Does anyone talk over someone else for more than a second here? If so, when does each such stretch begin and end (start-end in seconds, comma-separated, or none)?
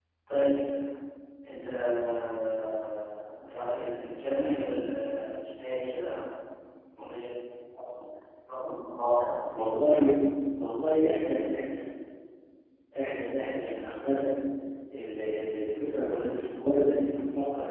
none